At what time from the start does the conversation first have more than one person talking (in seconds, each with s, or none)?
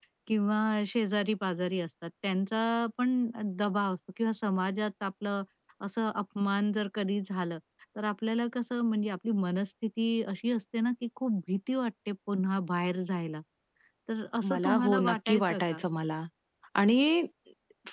14.5 s